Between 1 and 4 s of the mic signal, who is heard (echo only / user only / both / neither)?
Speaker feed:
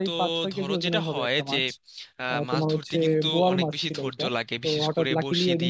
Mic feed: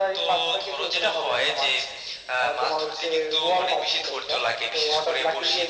echo only